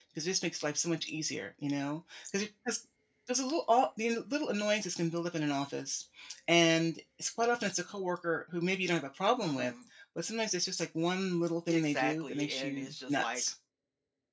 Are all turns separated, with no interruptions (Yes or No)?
No